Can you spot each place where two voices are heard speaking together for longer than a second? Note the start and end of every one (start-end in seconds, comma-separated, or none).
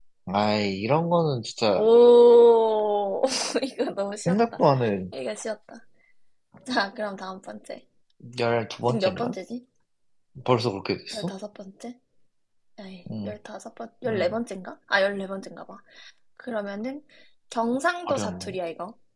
none